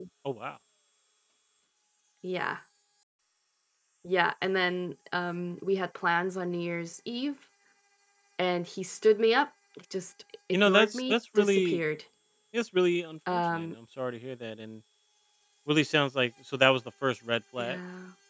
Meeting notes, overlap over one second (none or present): present